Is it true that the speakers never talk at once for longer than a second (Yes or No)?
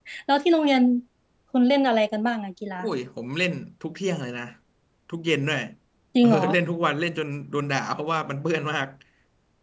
Yes